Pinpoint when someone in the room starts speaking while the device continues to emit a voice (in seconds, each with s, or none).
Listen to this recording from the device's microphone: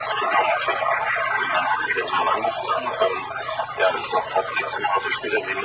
none